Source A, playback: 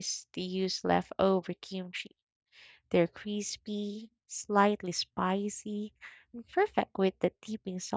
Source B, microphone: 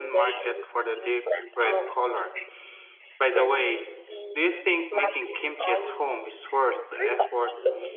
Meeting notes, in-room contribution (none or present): present